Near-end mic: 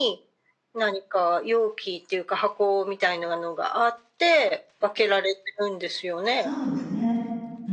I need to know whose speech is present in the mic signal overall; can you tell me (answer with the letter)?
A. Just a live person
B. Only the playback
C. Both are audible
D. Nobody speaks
C